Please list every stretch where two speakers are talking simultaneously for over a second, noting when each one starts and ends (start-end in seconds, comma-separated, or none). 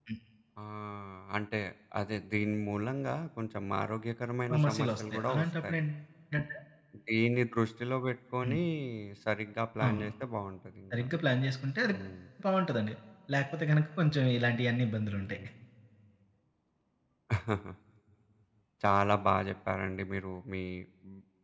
4.5-5.8